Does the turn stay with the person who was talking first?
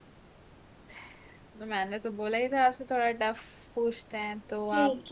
No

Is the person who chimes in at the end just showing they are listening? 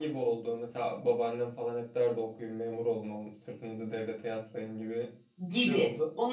No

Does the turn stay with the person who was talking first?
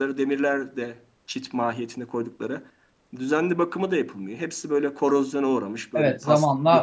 No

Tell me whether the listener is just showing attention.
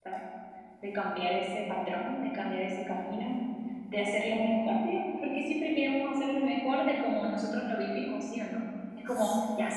Yes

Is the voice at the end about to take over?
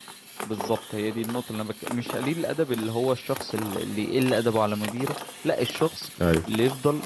No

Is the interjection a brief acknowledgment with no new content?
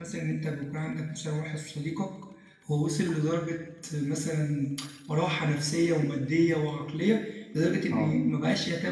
Yes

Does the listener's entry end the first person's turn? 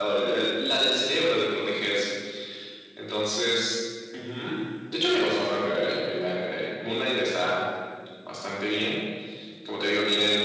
No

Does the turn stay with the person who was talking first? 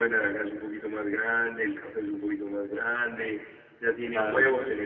Yes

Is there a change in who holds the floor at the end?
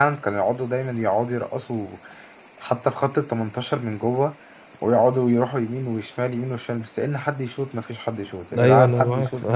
Yes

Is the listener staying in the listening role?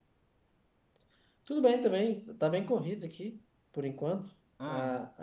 Yes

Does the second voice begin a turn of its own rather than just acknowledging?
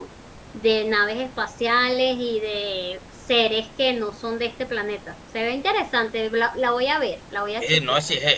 Yes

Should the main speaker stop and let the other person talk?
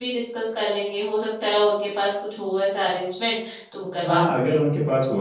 Yes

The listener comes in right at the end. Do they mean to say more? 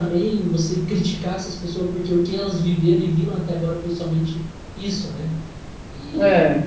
No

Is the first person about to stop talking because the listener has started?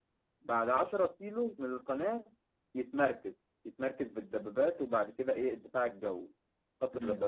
No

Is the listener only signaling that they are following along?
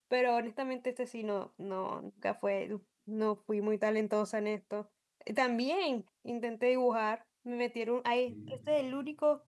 Yes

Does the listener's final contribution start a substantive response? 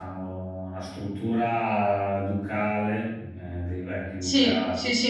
Yes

